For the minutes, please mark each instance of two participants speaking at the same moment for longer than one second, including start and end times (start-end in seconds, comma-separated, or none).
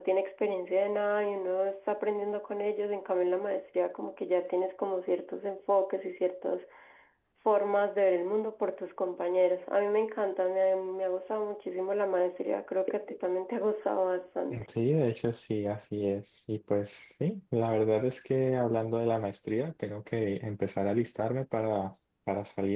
none